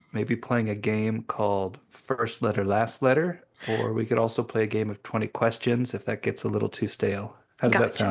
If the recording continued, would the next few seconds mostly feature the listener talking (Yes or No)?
Yes